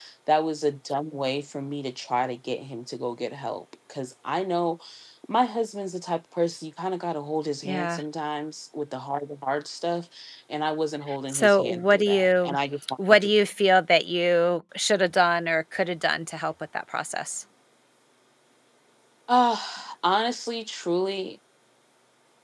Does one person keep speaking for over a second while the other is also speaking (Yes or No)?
Yes